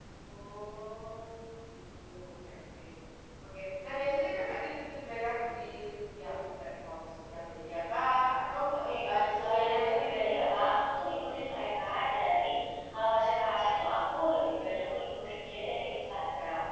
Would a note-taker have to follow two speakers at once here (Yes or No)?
Yes